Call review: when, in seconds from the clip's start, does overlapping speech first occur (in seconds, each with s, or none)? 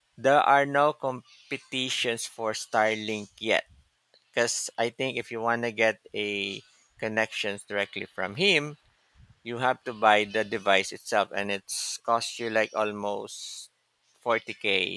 none